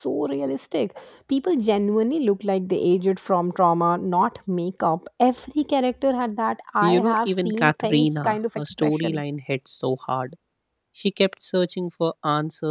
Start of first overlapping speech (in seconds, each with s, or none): 6.8 s